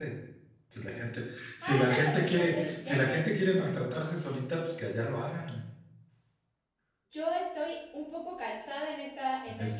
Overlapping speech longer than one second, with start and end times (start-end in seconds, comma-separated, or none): 1.6-3.0